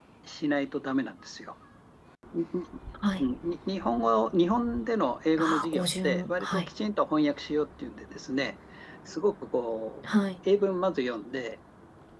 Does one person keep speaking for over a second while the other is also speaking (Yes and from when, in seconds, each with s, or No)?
Yes, from 5.4 s